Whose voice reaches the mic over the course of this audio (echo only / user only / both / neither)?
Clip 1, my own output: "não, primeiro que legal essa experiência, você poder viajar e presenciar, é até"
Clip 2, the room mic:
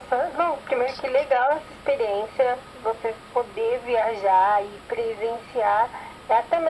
echo only